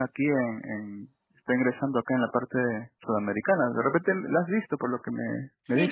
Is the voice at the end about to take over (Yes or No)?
Yes